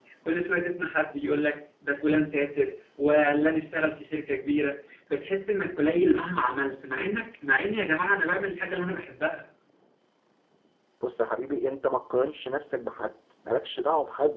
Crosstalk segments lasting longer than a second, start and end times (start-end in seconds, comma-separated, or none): none